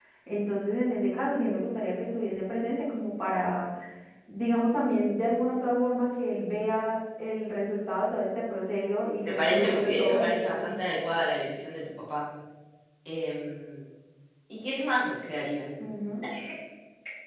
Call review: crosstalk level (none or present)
present